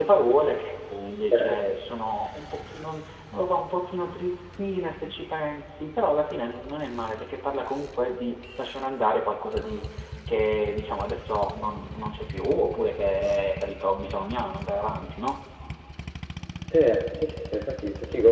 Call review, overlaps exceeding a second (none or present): none